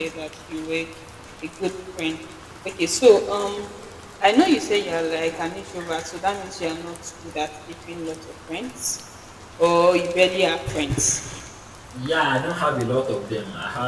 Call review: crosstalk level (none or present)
none